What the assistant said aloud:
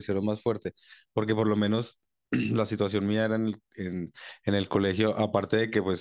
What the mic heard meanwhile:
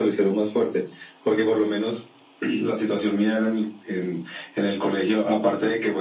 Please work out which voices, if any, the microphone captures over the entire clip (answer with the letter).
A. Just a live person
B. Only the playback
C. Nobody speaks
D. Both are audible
B